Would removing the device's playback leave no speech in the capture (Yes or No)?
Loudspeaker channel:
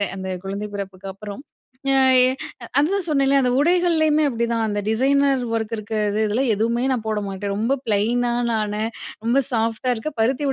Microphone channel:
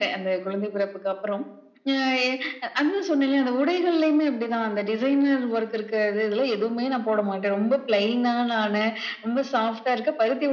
Yes